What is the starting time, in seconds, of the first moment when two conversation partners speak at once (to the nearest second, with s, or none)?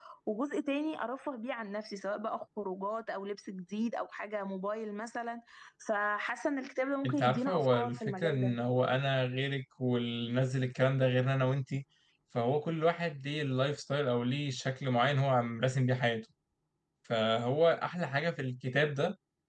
7 s